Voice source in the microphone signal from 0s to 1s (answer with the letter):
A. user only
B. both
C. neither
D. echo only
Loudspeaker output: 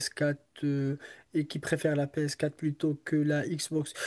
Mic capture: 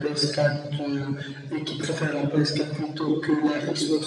D